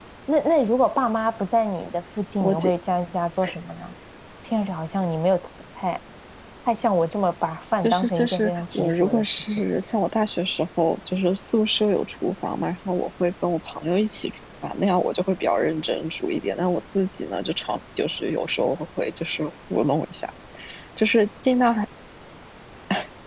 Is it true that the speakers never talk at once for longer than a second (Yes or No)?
No